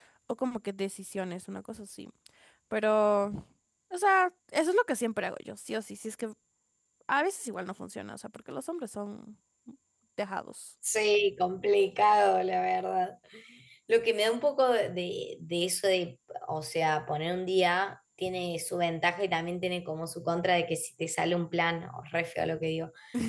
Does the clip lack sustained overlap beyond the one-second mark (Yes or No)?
Yes